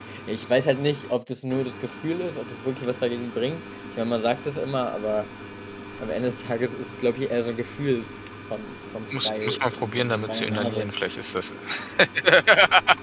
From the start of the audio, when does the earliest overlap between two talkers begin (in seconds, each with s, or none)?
9.1 s